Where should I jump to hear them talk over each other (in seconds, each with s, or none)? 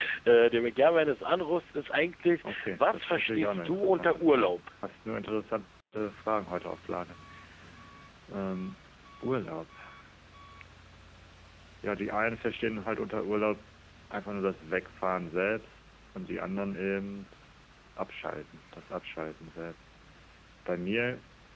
2.4 s